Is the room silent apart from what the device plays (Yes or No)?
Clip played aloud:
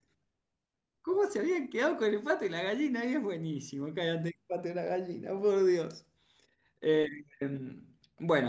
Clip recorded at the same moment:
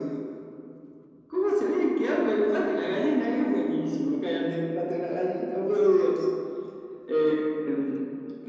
Yes